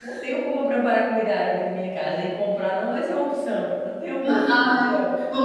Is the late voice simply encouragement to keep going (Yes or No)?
No